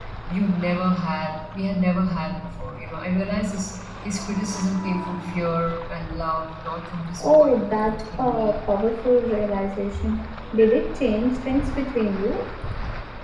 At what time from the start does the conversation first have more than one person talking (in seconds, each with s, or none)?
7.2 s